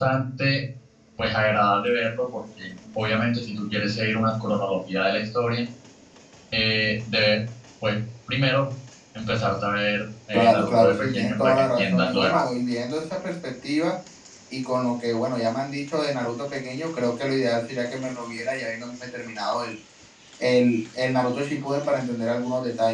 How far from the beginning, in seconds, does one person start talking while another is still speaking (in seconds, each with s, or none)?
10.3 s